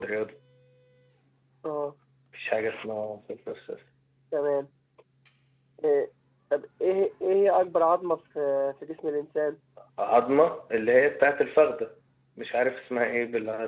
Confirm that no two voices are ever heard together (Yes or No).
Yes